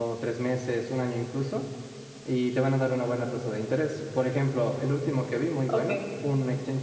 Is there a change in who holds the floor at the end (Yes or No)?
No